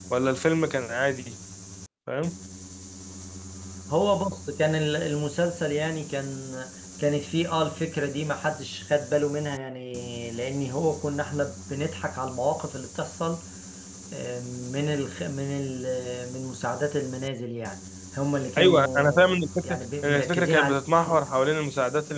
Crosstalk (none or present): present